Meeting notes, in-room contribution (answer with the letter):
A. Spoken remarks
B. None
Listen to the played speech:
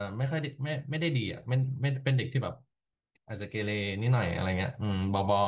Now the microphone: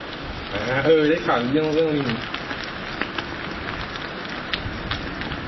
A